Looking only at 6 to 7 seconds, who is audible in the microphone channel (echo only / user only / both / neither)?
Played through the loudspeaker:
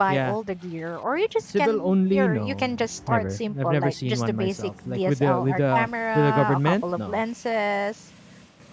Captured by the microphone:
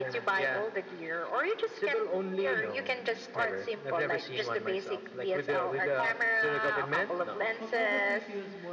echo only